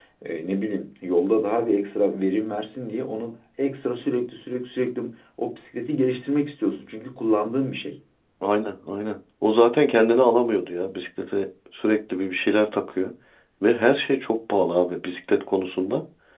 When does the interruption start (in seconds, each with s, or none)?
none